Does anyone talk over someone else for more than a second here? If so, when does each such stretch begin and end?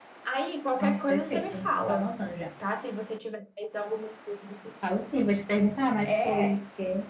0.8-2.1

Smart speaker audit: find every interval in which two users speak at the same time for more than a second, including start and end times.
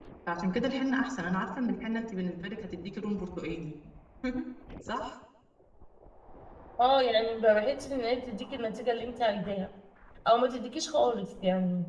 none

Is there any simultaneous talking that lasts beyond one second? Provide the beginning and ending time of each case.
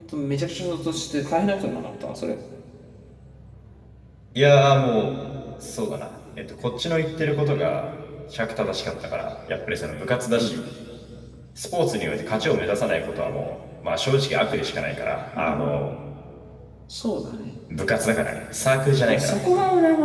none

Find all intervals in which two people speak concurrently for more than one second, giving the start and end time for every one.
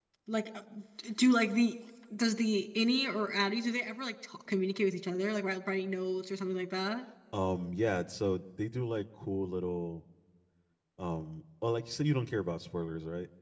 none

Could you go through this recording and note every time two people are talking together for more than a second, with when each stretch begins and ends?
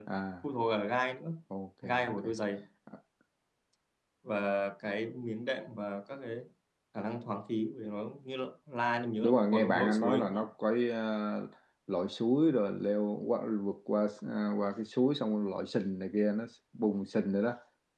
9.2-10.5

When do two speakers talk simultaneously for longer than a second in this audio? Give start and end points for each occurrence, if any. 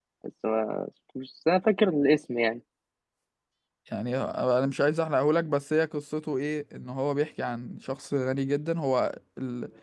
none

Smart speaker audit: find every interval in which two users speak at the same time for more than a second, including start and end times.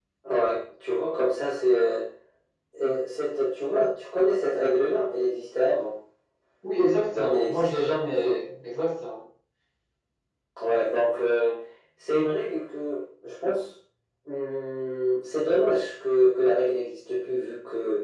7.1-8.4

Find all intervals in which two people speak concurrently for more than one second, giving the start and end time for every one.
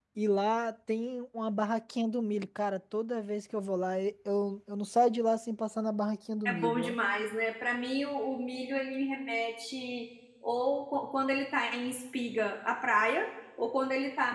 none

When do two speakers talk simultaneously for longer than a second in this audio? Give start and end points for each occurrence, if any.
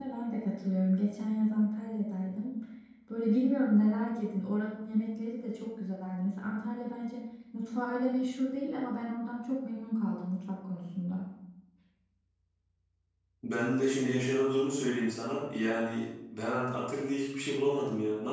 none

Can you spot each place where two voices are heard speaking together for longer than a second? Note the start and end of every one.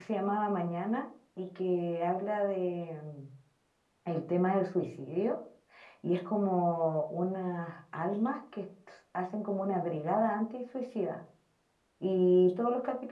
none

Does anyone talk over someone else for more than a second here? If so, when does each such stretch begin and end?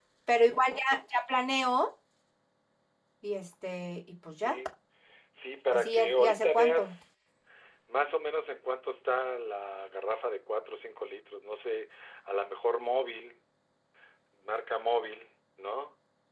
5.7-6.9

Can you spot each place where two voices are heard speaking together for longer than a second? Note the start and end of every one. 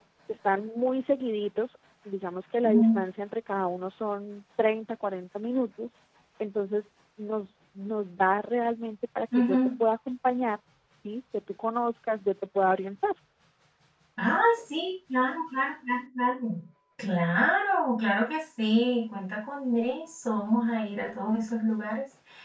none

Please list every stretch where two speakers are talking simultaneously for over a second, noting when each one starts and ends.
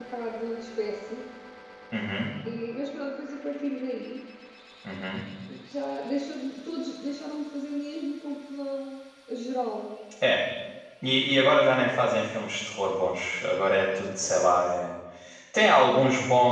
none

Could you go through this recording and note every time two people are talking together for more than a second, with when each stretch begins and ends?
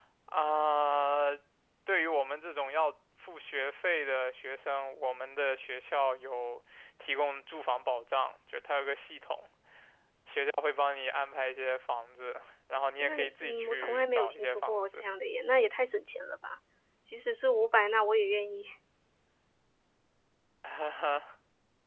13.0-15.0

